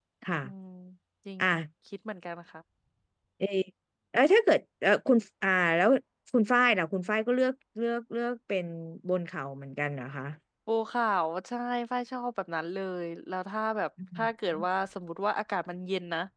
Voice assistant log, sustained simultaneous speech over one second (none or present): none